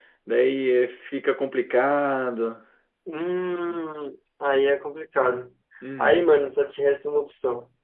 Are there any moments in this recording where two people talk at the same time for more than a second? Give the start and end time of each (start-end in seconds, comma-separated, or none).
none